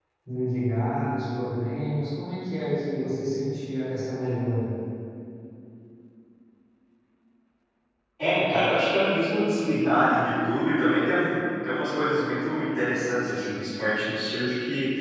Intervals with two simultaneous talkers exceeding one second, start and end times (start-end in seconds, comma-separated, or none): none